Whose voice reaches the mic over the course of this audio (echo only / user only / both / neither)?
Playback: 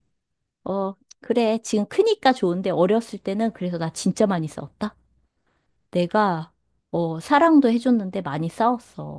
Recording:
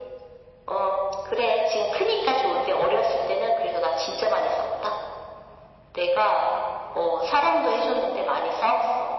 echo only